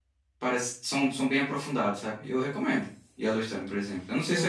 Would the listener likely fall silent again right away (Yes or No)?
No